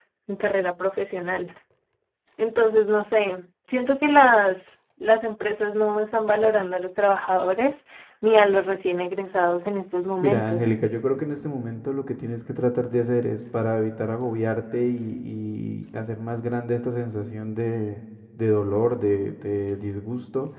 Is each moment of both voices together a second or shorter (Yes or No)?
Yes